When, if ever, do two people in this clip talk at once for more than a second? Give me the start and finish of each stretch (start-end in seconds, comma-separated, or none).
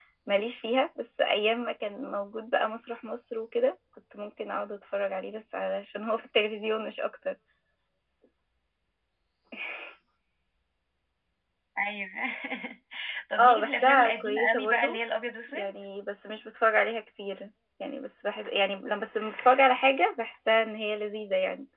13.4-15.0